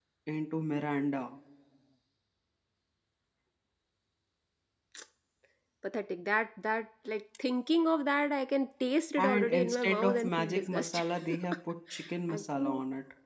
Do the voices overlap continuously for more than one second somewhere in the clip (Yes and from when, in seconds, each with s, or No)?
Yes, from 9.2 s